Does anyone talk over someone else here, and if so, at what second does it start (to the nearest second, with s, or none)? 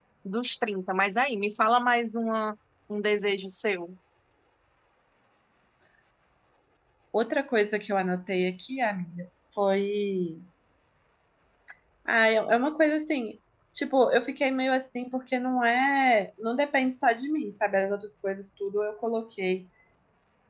none